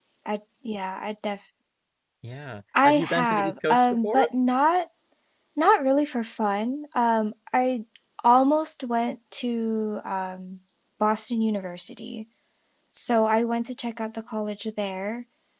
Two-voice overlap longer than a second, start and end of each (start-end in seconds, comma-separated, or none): 2.8-4.3